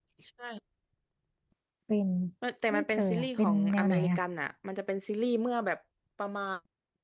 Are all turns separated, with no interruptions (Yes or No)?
No